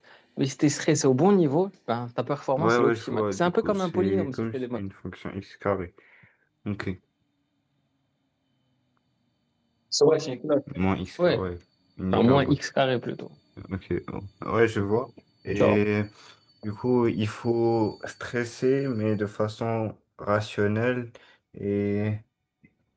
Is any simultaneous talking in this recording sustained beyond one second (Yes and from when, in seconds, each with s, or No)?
Yes, from 2.6 s